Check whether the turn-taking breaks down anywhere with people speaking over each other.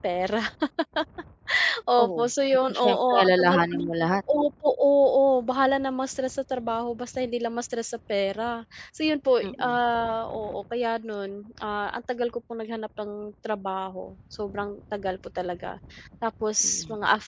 Yes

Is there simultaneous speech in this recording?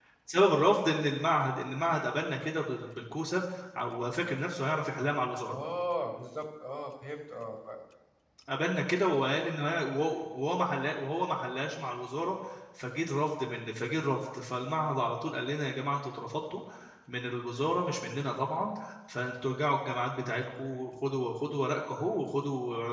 No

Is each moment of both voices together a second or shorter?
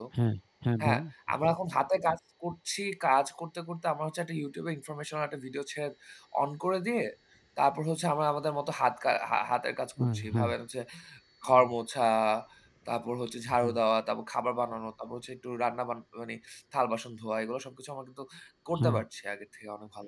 Yes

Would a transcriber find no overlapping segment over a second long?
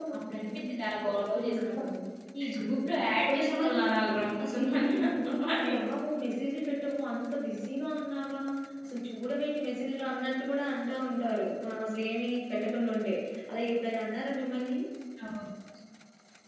No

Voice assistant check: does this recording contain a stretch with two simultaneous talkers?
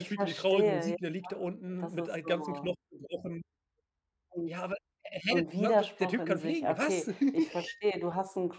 Yes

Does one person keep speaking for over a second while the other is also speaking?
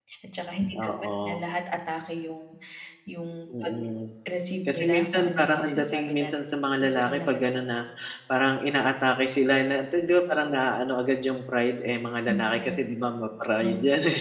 Yes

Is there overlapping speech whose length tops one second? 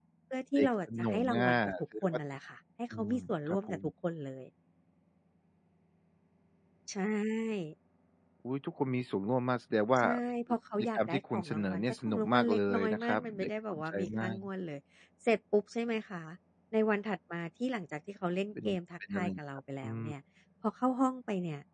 Yes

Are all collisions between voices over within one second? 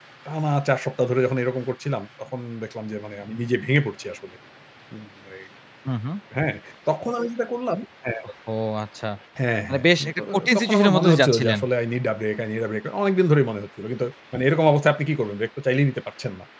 No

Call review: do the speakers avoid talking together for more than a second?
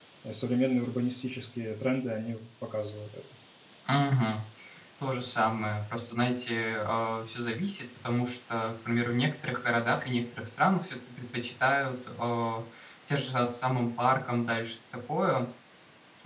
Yes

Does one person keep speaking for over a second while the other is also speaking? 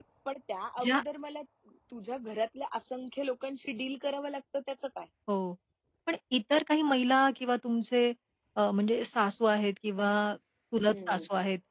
No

